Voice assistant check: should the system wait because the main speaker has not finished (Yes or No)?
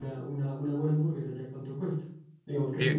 Yes